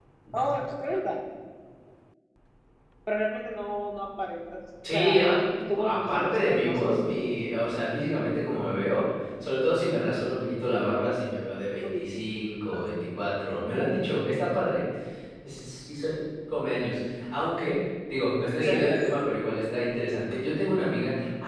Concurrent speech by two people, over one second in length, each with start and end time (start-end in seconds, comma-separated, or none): 5.8-7.1